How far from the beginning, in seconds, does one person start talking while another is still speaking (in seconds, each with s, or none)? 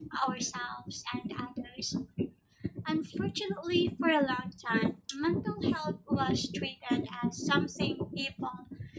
none